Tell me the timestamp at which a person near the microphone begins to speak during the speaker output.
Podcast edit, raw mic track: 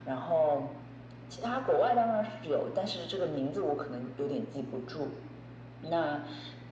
none

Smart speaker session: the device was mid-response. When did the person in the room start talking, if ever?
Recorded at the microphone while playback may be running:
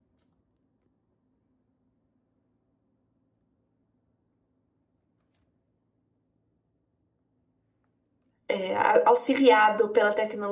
8 s

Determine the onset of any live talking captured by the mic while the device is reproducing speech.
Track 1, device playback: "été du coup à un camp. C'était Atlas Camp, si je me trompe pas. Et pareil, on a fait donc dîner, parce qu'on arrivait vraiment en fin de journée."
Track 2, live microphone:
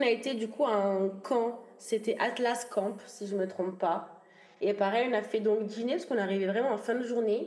none

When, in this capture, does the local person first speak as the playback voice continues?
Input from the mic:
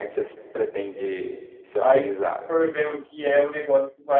2 s

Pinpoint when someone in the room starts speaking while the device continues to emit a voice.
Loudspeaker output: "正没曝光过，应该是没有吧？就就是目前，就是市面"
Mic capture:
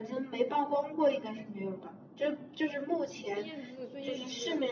3 s

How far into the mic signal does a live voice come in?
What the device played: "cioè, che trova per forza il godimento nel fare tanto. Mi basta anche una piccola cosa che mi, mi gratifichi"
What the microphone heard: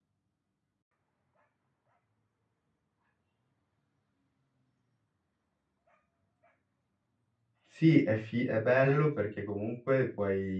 8 s

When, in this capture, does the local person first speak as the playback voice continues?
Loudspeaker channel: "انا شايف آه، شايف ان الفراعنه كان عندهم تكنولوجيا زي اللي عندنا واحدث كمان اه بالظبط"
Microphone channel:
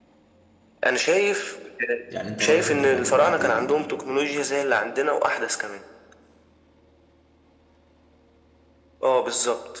2 s

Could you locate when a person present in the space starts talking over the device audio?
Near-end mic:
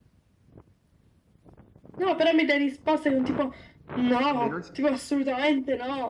4 s

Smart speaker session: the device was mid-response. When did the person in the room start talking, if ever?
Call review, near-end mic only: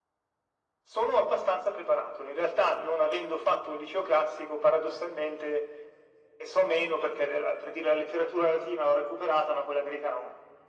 none

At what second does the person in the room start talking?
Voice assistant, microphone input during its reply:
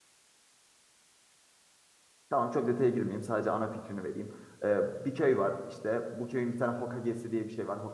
2 s

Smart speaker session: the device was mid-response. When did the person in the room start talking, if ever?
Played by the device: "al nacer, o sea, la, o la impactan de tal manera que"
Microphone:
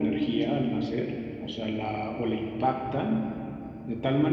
none

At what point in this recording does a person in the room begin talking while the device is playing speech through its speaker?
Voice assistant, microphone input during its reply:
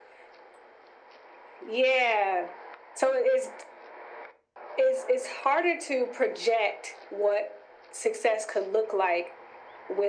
none

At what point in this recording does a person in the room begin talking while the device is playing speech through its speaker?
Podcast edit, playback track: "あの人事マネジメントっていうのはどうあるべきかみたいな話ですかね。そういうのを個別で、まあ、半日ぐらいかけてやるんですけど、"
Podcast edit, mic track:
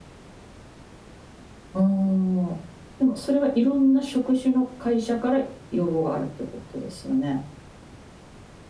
2 s

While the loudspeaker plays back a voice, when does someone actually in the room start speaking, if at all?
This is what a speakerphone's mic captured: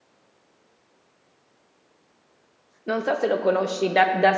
3 s

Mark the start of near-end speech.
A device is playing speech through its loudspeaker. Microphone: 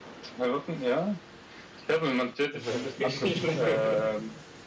3 s

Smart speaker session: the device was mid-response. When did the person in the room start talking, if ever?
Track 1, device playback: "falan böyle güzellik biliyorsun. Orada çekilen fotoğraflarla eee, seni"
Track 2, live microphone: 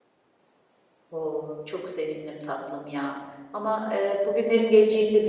1 s

